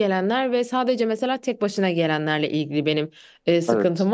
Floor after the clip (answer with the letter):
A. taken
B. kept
B